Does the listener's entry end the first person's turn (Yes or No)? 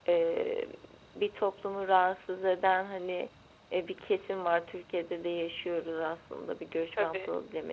No